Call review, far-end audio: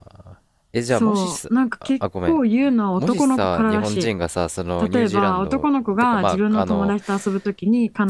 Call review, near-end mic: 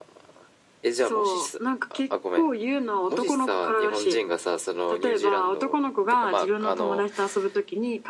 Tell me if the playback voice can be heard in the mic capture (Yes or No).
Yes